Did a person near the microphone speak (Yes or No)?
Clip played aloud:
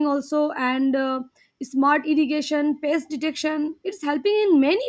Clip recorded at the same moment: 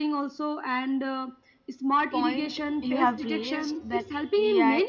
Yes